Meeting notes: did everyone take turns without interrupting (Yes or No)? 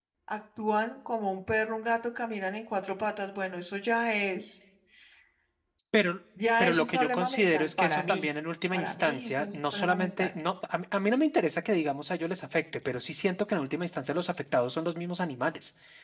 No